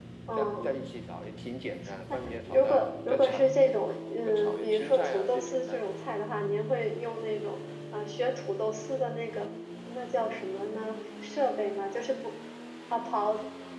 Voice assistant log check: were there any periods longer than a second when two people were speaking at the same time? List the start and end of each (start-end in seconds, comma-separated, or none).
2.1-3.4, 4.3-5.8